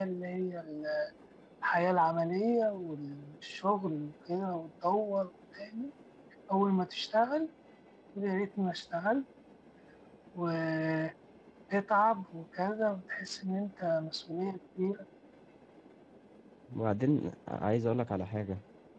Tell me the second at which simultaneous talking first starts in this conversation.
none

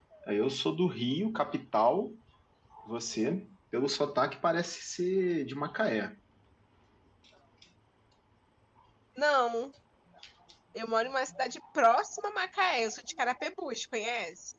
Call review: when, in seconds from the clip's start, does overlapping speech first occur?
none

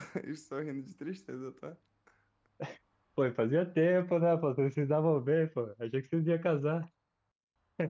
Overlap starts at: none

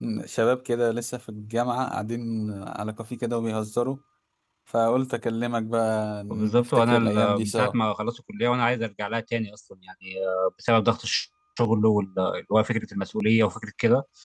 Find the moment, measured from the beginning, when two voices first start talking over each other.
6.3 s

